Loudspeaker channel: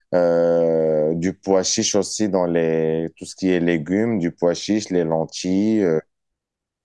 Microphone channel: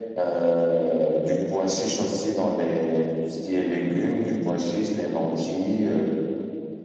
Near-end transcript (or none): none